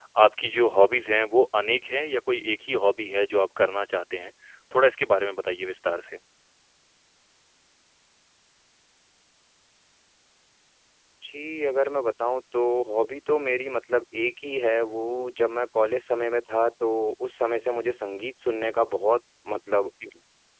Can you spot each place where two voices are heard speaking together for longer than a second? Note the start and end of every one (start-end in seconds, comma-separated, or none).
none